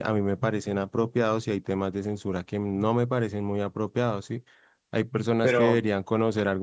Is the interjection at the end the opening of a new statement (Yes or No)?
No